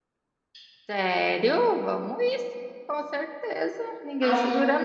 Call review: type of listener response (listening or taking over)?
taking over